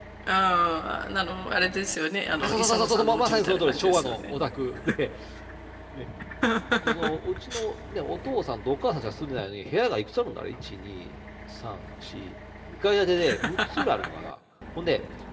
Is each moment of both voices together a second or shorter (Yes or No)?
No